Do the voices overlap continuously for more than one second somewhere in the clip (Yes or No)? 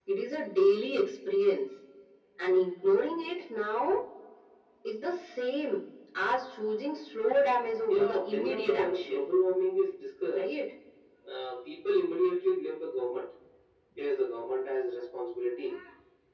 Yes